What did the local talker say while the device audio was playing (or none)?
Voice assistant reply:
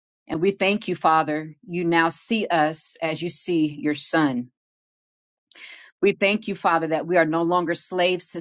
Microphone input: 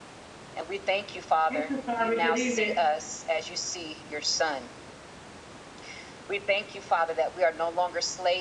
Hey, Sister Sasari. Good evening.